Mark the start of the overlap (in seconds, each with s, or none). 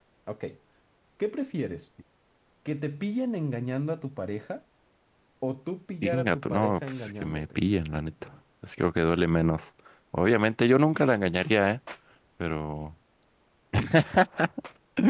6.0 s